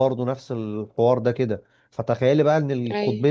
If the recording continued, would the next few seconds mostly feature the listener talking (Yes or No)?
No